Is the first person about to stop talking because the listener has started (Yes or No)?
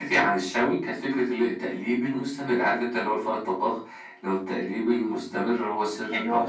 No